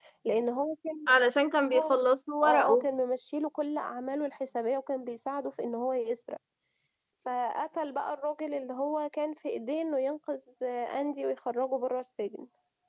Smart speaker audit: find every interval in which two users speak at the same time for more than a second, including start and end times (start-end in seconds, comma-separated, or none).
none